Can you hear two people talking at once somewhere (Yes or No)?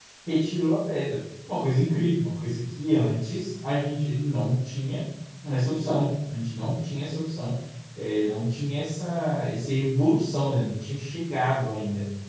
No